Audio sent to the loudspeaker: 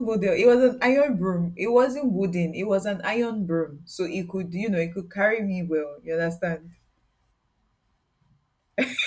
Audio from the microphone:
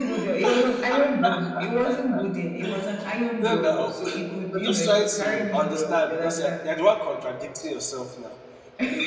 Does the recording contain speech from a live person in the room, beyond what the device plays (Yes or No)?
Yes